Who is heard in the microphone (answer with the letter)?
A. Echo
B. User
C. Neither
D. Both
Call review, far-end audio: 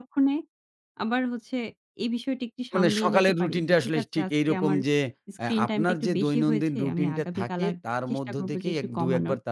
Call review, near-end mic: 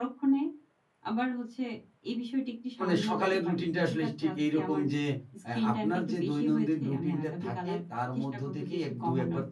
A